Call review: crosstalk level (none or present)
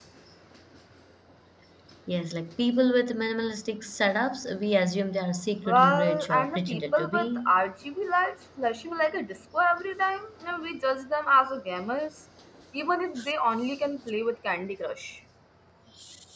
present